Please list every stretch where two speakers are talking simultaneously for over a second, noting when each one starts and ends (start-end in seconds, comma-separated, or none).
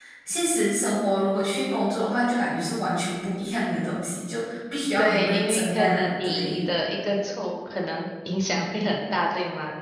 5.0-6.6